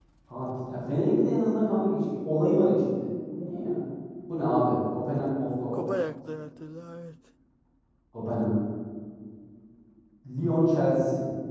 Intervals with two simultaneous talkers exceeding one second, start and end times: none

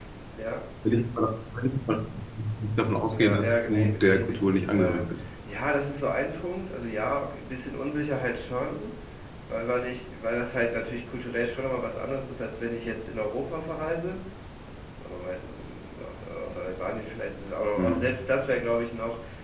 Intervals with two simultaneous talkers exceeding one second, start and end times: 3.1-5.1

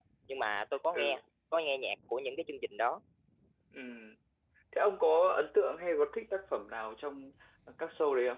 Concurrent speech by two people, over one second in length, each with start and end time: none

